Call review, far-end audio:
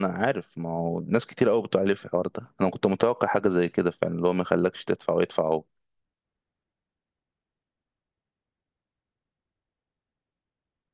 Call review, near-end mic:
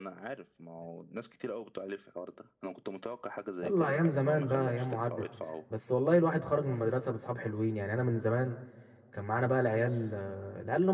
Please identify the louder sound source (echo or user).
user